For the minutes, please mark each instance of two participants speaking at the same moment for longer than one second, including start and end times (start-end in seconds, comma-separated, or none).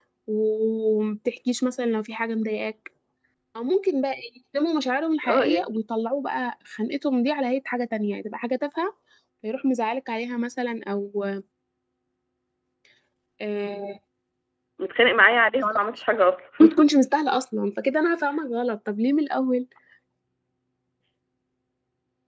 none